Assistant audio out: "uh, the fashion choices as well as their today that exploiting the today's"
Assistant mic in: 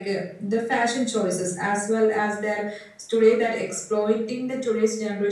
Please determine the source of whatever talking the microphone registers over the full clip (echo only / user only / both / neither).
echo only